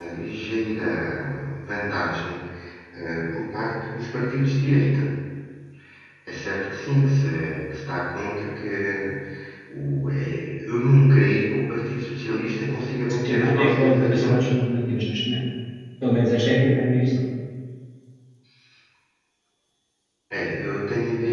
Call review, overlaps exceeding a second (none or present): present